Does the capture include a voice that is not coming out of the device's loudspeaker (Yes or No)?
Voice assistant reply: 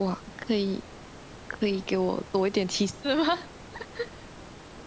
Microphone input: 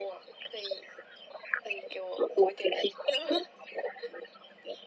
No